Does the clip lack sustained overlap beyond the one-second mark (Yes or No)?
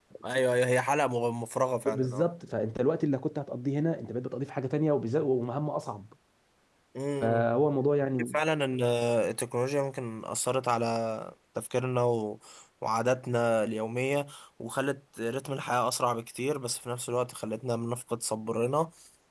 Yes